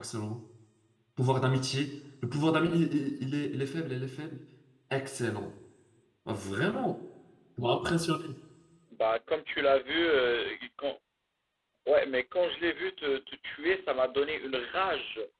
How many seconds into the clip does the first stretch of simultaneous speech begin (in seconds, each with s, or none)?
none